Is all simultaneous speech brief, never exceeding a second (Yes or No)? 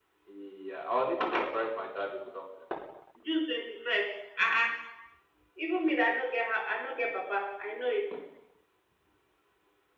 Yes